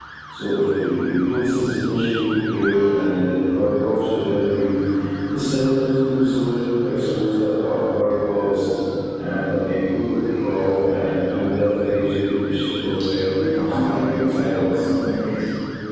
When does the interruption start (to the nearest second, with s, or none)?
13 s